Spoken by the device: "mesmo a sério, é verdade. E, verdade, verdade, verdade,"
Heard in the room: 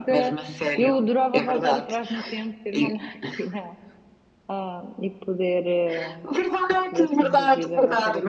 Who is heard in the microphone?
both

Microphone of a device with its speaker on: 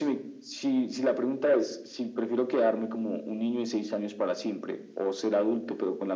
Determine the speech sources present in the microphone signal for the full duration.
echo only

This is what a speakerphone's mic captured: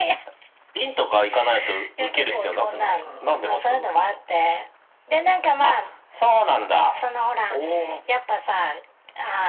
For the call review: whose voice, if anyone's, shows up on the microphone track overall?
both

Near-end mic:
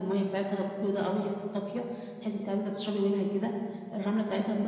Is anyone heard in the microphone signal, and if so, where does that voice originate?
echo only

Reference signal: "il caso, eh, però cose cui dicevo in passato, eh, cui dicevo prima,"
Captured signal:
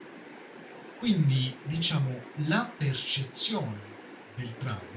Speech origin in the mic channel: user only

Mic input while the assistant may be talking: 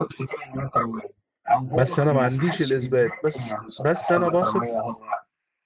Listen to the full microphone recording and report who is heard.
both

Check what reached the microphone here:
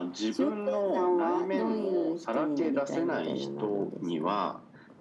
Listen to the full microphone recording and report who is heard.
echo only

